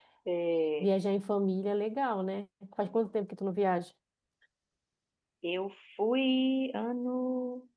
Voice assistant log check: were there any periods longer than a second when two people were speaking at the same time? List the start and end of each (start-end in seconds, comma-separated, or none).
none